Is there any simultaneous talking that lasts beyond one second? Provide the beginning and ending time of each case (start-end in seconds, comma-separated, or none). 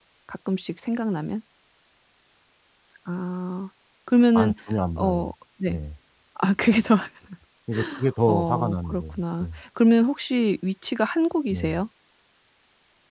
8.3-9.5